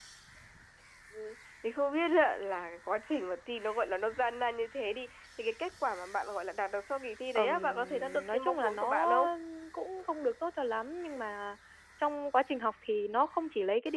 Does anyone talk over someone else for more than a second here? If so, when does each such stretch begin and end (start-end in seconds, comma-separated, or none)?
7.3-9.2